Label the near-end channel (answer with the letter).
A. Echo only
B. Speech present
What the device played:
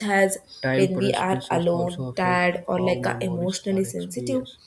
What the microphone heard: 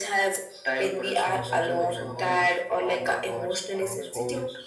B